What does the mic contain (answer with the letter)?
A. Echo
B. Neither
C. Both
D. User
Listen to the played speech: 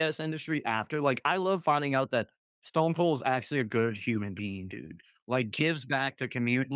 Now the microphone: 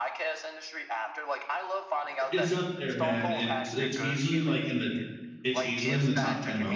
C